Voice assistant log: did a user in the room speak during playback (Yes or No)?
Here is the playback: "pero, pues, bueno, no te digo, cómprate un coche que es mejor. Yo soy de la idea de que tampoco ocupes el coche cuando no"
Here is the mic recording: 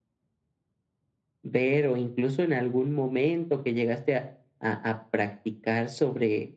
Yes